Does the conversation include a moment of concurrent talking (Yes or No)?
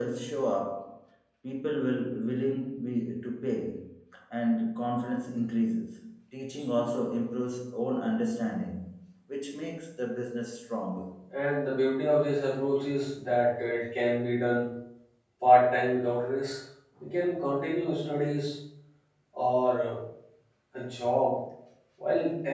No